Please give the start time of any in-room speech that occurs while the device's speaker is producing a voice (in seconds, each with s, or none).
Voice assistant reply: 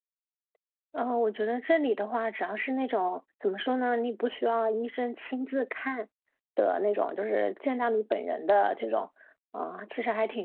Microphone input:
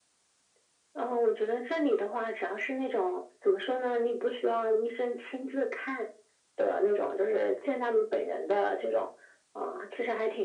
none